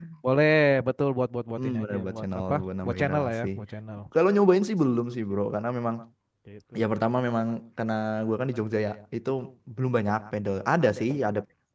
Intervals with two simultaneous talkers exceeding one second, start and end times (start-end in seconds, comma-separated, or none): 1.6-3.5